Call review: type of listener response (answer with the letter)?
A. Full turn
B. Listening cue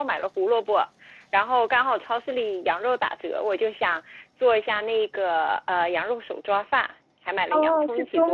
A